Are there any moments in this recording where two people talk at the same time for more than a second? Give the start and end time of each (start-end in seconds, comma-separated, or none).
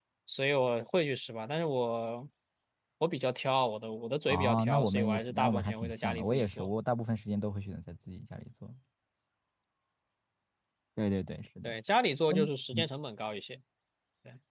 4.3-6.7